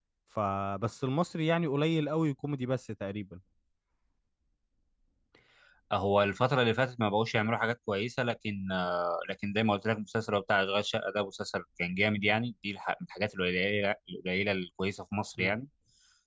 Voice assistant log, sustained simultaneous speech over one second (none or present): none